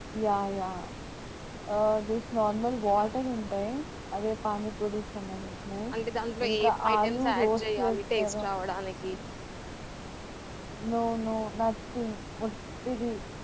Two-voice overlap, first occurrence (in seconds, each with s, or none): 6.5 s